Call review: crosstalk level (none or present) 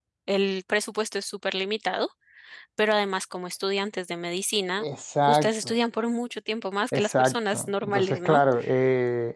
present